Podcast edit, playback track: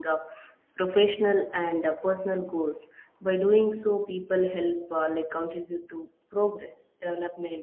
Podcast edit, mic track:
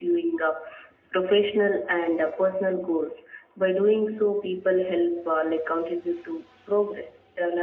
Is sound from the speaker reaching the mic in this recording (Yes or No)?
Yes